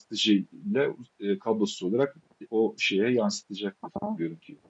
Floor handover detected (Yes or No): Yes